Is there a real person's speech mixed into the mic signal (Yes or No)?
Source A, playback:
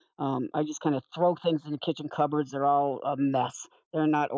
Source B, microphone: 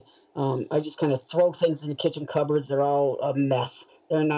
No